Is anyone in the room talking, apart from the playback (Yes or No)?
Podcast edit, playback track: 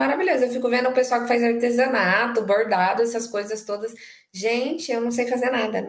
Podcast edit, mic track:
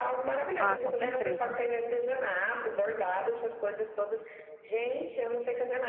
Yes